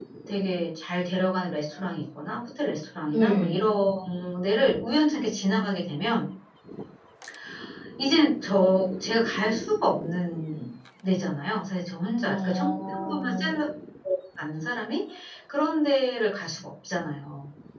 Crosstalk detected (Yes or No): Yes